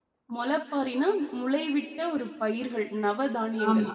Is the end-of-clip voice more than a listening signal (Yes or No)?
Yes